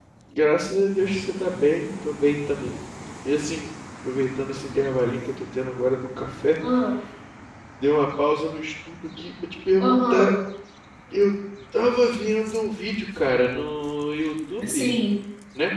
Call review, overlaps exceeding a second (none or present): none